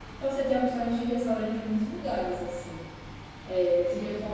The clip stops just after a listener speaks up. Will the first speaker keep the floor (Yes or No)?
Yes